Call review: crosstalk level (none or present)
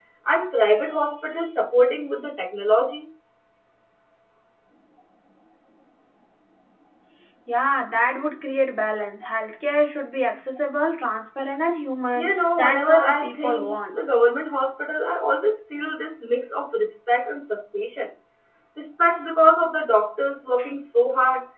present